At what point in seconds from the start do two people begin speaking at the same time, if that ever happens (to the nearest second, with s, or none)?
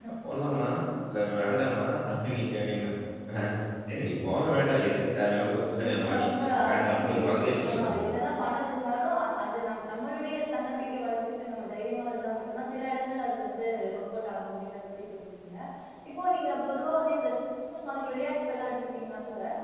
6 s